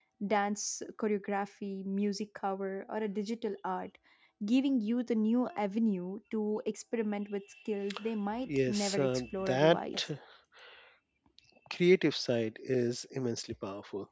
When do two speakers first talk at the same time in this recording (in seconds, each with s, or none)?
8.5 s